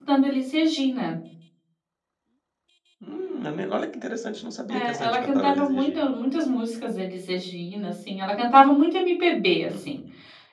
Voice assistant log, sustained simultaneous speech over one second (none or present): present